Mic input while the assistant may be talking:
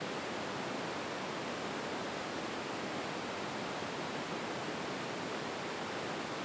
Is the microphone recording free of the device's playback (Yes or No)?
Yes